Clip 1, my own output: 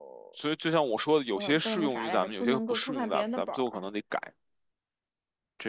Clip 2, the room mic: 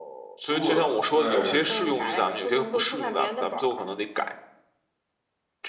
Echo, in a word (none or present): present